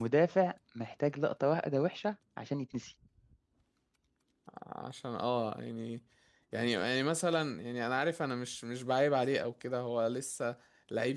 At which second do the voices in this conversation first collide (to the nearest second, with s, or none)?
none